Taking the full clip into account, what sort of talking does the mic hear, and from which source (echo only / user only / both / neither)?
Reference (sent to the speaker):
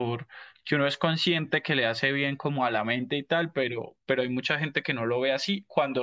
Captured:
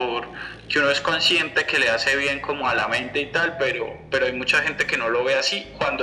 echo only